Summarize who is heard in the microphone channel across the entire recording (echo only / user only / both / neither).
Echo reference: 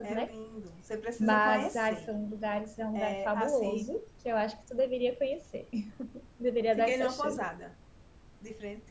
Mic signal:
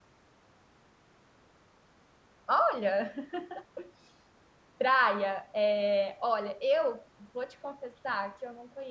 user only